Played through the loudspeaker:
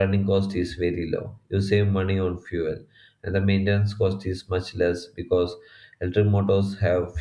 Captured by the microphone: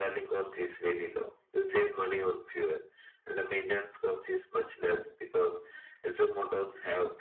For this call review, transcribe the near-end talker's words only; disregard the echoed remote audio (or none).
none